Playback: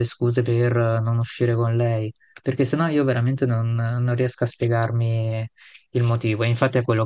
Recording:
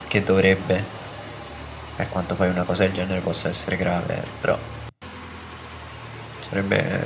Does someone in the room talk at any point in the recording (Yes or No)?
Yes